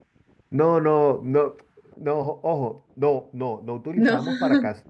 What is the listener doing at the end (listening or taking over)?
listening